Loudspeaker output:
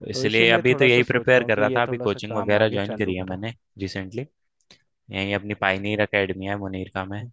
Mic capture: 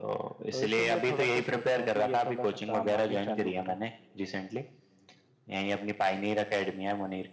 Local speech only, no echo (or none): none